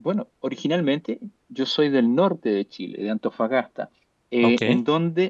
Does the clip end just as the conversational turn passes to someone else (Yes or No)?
No